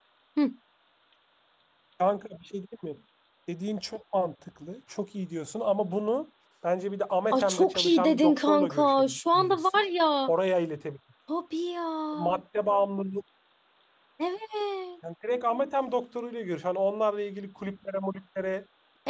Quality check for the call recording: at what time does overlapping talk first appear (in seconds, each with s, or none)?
7.3 s